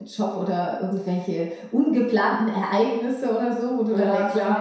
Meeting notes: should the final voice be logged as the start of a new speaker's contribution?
Yes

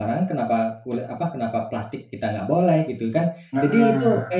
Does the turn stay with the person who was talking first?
Yes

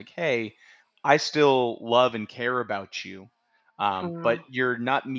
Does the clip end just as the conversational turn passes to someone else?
No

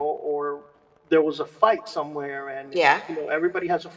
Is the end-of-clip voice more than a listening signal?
No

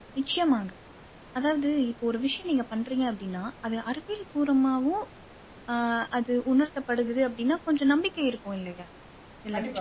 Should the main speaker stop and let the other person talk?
Yes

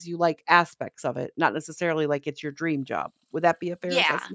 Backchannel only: No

